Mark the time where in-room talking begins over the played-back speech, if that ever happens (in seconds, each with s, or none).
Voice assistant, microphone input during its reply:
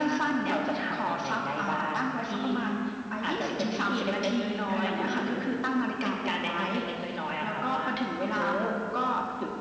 none